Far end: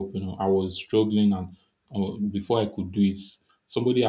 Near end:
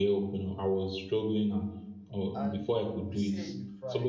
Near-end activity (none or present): present